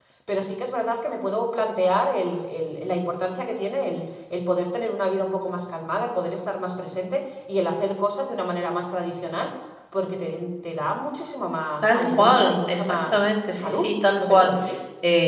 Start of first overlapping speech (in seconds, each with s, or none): 11.8 s